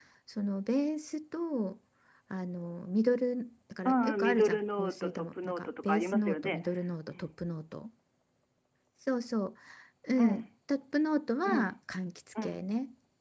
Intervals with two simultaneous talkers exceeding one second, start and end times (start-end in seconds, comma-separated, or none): 3.9-6.6